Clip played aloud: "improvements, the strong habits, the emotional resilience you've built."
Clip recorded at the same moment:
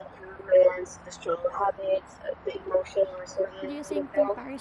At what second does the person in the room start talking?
3.6 s

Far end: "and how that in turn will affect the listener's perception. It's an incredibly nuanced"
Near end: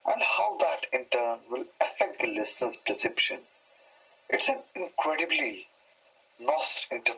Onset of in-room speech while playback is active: none

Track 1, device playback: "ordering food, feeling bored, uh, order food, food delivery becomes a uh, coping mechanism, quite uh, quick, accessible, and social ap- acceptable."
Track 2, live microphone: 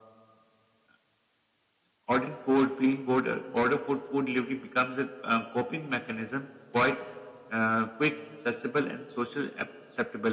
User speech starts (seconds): none

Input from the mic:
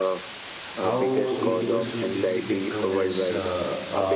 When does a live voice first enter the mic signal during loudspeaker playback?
0.7 s

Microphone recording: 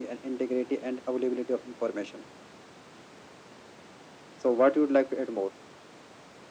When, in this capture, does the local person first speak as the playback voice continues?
none

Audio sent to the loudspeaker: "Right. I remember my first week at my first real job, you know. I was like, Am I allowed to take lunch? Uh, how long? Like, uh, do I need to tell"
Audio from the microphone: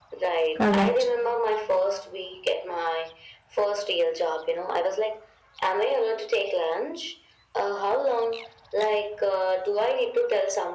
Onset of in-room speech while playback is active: 0.5 s

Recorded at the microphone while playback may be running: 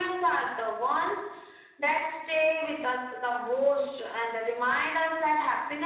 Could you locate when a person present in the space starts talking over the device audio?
none

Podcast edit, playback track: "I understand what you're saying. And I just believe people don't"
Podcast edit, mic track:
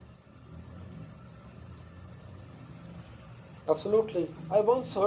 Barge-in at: 3.7 s

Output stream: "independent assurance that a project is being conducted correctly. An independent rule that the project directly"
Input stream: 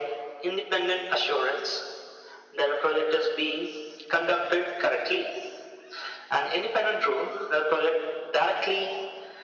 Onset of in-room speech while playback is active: none

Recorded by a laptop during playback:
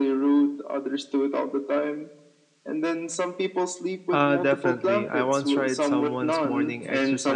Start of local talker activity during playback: 4.1 s

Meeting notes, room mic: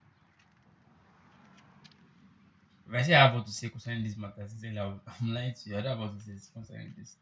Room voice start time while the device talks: 2.8 s

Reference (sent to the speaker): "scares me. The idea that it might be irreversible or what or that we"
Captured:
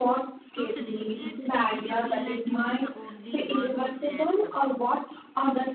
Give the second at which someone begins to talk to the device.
0.5 s

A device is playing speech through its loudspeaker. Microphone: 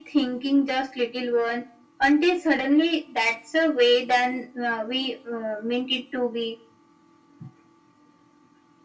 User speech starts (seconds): none

